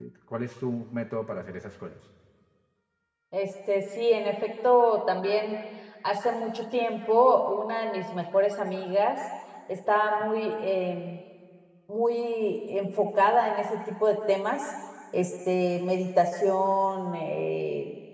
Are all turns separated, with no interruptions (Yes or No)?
Yes